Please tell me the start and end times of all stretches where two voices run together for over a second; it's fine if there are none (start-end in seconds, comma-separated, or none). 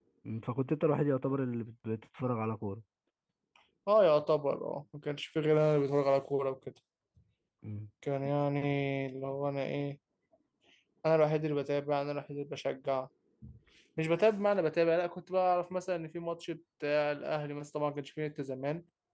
none